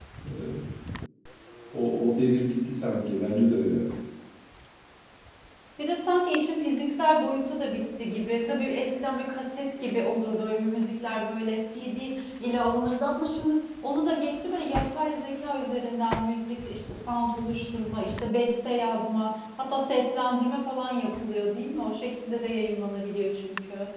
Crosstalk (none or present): none